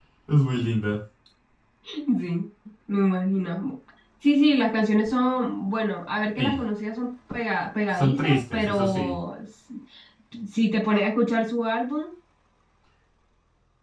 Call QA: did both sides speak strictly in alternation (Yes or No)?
No